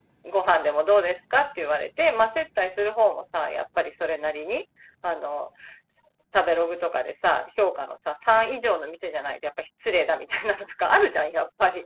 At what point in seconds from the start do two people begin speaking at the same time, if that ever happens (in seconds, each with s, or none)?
none